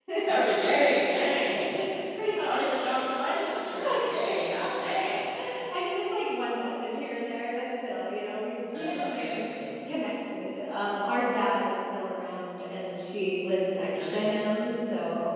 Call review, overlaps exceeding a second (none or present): present